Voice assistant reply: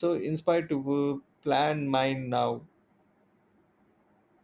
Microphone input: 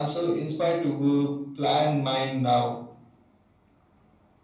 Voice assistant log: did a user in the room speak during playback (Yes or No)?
No